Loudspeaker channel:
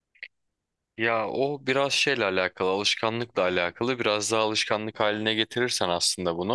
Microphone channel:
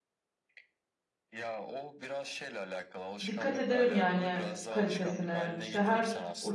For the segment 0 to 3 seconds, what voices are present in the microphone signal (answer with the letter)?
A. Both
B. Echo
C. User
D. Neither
B